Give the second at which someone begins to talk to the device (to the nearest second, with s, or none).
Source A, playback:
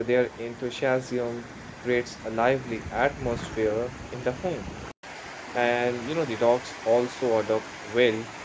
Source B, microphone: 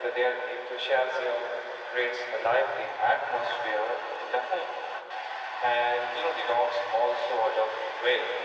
none